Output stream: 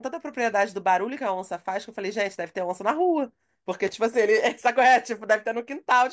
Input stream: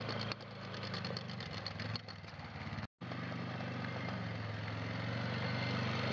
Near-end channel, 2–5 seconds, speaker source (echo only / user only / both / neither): neither